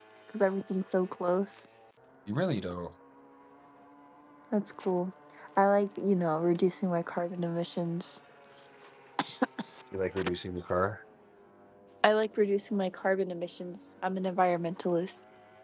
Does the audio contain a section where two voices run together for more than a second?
No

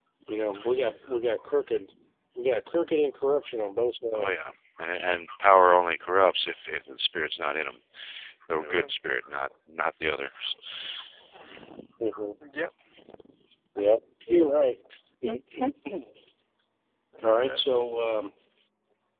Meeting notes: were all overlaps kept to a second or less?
Yes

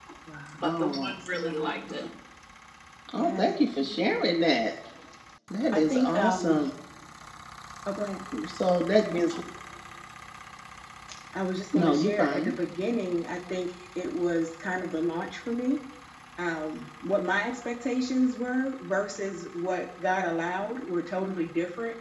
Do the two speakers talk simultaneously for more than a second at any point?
Yes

